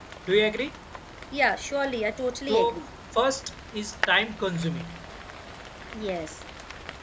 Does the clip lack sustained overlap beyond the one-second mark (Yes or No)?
Yes